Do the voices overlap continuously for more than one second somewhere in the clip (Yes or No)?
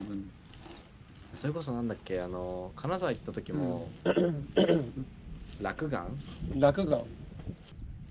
No